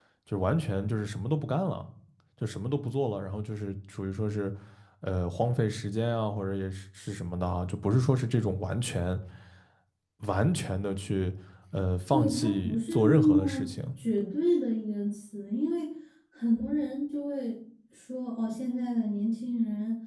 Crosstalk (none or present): present